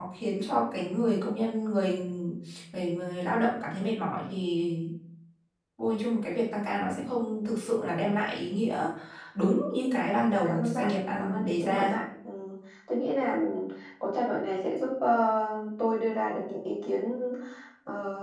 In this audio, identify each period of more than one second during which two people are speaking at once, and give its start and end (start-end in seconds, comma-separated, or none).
10.4-11.9